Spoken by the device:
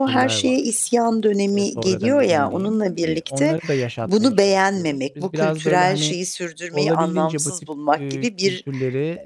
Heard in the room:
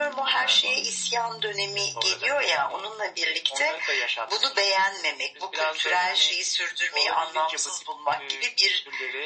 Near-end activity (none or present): none